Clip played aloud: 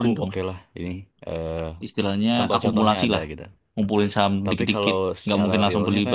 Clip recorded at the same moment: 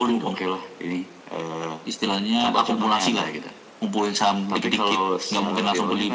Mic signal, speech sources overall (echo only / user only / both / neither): echo only